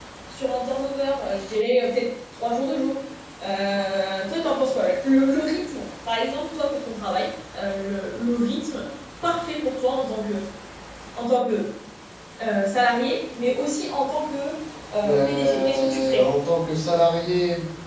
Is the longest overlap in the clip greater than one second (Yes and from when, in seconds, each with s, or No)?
Yes, from 15.0 s